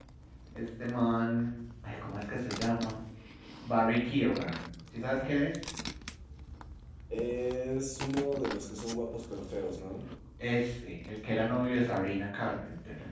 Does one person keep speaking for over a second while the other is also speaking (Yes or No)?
No